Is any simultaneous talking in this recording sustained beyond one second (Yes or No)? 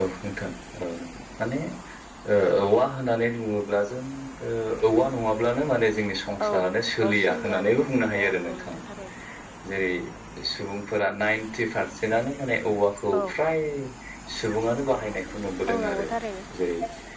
Yes